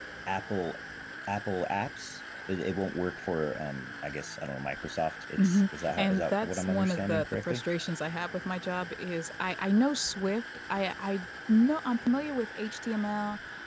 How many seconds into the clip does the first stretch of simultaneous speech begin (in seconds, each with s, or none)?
5.4 s